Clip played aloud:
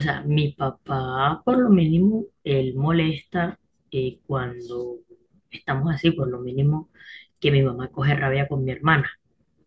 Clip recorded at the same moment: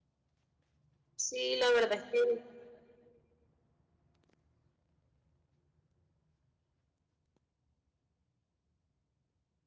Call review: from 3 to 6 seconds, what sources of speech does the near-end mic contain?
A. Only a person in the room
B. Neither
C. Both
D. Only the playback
B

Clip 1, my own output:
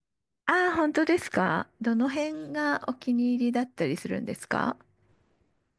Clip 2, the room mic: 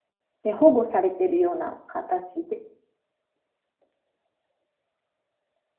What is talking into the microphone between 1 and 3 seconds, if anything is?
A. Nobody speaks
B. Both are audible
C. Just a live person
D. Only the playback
C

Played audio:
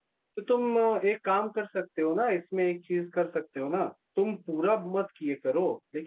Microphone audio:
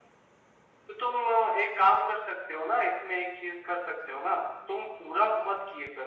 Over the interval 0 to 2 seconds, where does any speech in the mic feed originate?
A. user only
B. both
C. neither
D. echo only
D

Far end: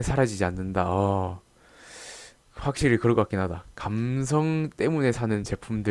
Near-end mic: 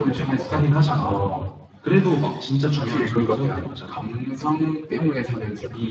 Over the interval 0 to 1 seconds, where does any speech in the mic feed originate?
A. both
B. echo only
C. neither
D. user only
A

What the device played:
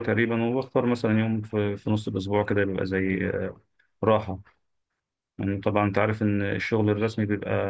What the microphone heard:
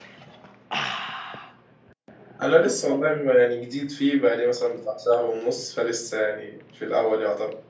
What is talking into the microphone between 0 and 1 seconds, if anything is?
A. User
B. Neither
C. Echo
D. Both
B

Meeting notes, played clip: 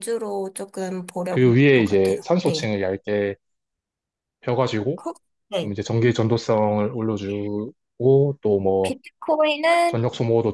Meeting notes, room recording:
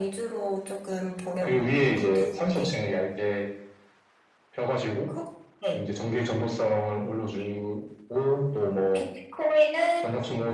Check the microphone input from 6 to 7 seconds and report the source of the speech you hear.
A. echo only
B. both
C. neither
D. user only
A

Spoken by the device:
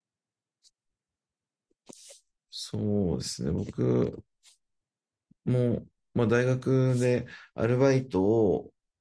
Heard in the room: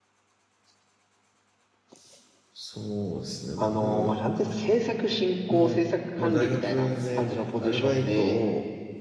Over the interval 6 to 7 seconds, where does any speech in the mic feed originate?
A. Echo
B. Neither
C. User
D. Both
D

